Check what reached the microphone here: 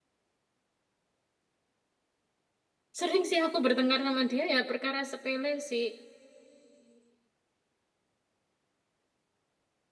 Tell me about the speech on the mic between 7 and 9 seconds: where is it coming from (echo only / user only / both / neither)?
neither